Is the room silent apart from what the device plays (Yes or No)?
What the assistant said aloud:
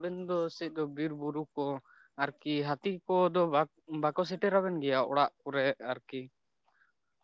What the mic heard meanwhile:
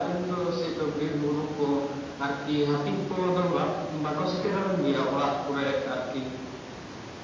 Yes